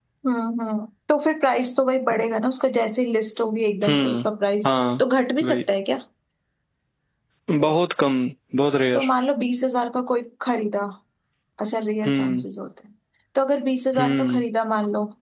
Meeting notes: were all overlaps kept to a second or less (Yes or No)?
Yes